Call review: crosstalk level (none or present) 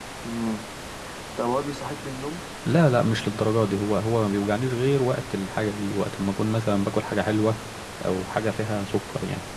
none